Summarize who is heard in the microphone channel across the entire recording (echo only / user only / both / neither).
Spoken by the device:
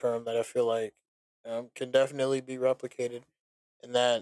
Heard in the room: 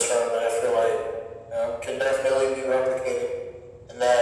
echo only